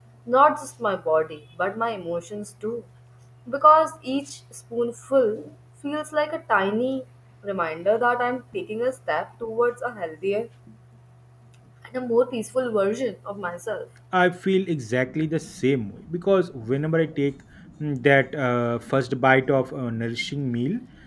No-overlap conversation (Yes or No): Yes